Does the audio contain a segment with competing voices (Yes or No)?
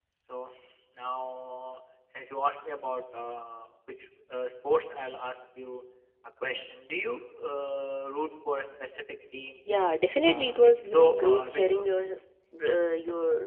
Yes